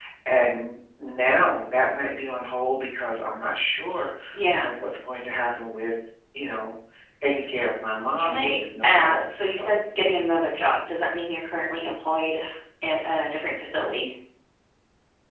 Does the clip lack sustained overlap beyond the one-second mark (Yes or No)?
No